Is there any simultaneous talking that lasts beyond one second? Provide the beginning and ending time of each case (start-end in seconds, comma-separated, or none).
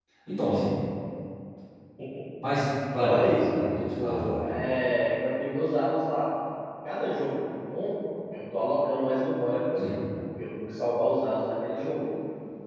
3.0-4.5